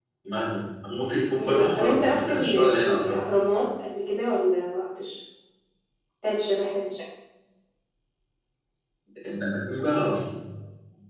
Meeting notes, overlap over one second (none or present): present